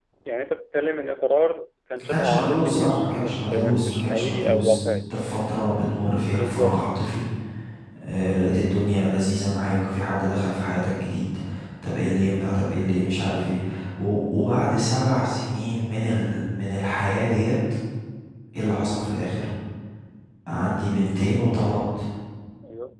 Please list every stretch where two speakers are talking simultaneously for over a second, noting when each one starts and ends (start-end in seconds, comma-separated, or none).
2.0-4.8